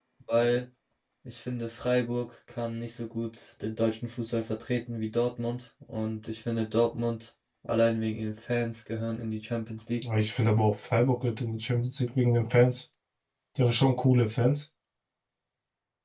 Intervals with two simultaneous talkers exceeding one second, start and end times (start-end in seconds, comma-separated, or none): none